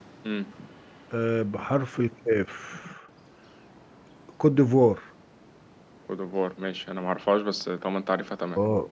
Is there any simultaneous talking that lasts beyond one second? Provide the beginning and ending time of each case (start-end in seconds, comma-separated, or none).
none